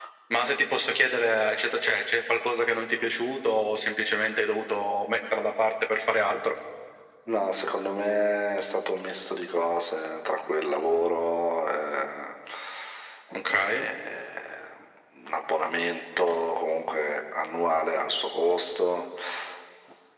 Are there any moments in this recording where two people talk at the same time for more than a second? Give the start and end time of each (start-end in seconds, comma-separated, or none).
none